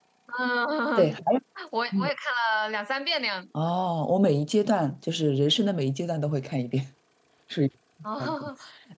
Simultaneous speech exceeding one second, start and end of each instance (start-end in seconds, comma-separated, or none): none